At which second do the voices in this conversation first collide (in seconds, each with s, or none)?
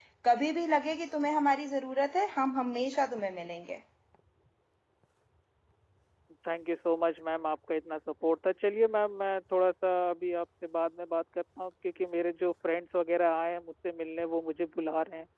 none